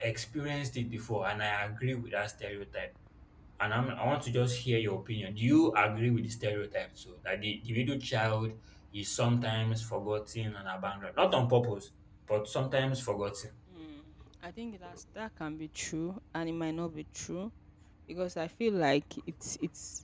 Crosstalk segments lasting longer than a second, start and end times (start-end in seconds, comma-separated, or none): none